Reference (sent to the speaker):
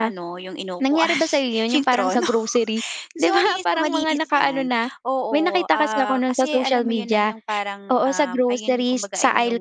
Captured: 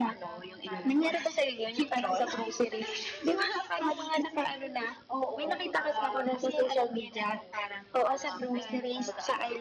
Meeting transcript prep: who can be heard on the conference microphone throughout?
both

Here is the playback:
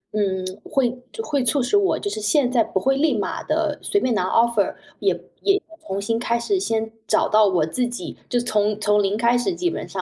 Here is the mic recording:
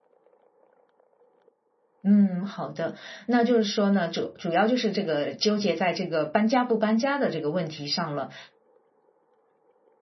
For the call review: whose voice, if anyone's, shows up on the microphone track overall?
user only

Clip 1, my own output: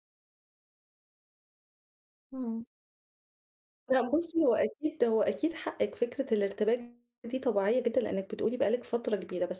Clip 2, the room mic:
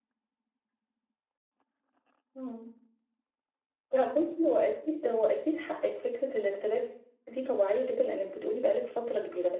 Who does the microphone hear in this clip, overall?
echo only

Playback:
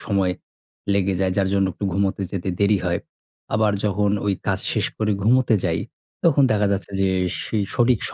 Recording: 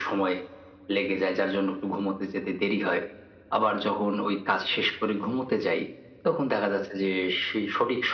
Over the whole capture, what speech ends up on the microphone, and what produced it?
echo only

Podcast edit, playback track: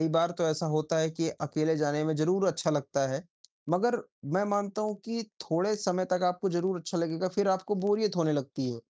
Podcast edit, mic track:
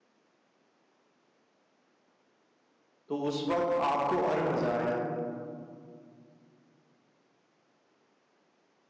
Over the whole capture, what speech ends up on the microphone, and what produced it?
user only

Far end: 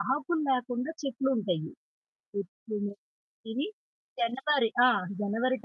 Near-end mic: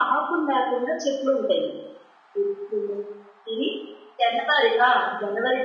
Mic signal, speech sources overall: echo only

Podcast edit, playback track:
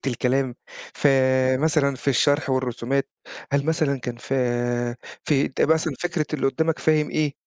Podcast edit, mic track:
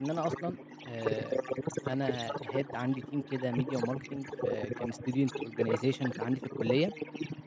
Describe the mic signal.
both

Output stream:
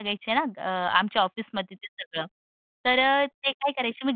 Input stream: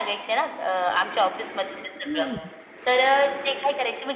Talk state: both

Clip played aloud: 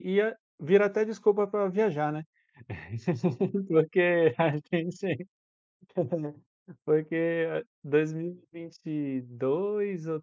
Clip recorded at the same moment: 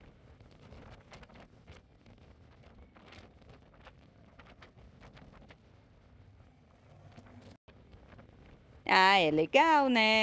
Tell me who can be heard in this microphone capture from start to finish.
user only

